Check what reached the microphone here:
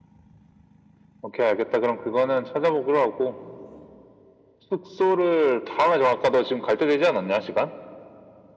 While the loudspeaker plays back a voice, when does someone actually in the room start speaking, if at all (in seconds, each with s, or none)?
none